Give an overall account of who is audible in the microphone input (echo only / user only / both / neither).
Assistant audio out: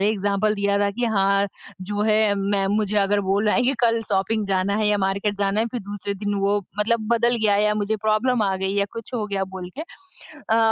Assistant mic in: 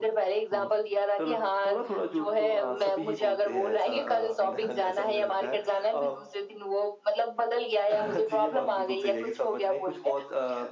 both